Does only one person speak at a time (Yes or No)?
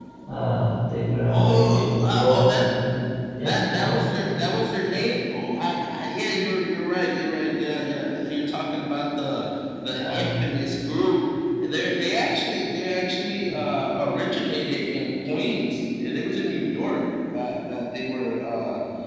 No